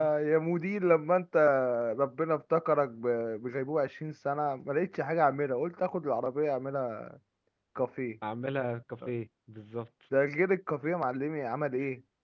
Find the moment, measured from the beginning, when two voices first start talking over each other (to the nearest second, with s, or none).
none